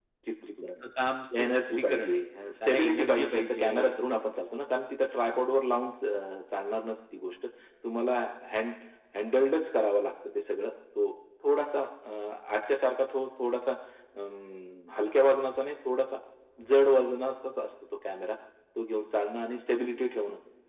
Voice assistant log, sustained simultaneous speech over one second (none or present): present